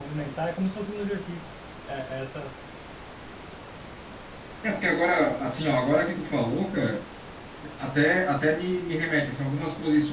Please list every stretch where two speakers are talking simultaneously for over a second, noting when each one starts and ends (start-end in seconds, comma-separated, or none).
none